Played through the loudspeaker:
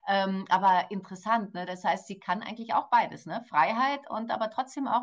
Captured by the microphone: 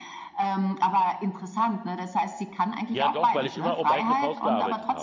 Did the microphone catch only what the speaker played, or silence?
No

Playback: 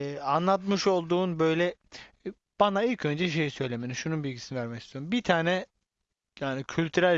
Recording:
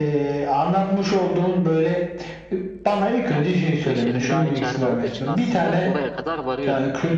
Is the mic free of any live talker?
No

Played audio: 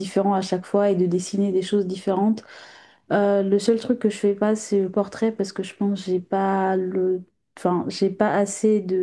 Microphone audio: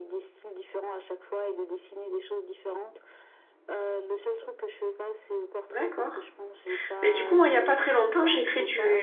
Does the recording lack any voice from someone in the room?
No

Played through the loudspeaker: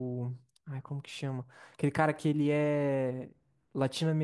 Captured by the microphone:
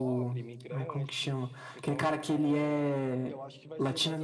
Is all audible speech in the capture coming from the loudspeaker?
No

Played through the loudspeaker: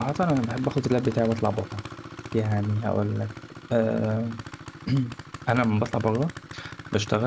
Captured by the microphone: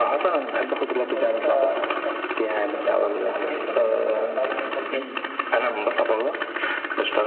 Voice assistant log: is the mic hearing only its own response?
No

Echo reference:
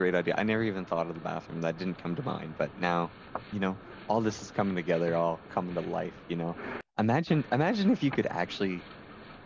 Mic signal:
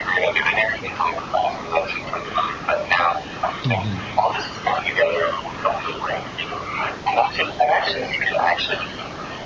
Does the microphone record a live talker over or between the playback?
Yes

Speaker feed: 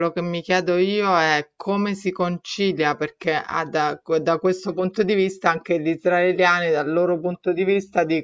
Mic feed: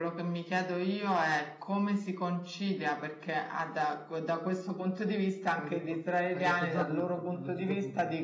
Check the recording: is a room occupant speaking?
Yes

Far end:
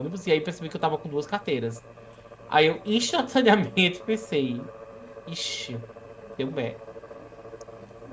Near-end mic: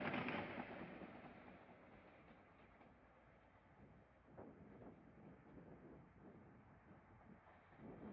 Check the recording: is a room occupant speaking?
No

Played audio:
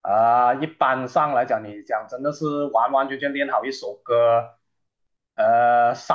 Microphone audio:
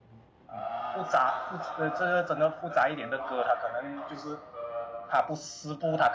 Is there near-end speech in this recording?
Yes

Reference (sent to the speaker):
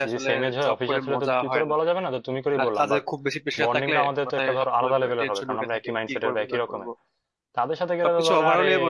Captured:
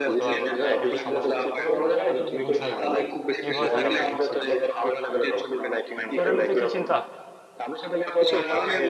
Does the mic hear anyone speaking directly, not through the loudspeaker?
Yes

